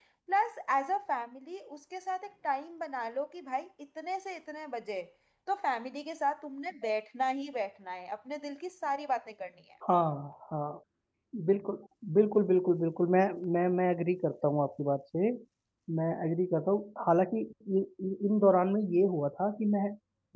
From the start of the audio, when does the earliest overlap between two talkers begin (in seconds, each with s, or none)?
none